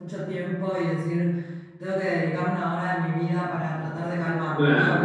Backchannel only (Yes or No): No